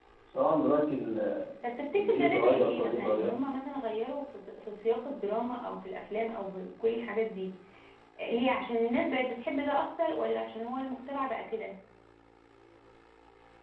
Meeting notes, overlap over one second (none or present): present